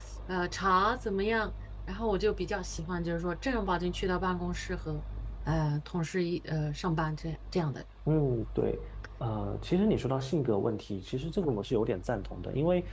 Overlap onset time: none

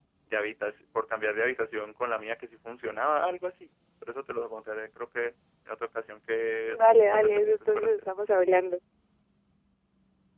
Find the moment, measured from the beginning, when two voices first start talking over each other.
6.7 s

